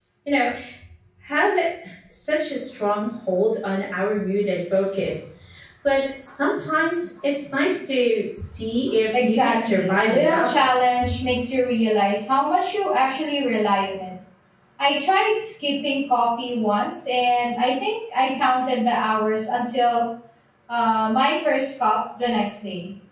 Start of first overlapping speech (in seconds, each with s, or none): 9.1 s